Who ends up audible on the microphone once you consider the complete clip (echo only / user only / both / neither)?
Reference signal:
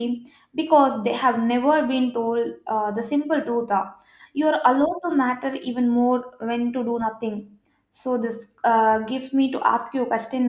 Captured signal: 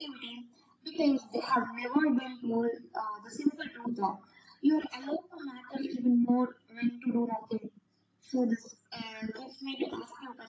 echo only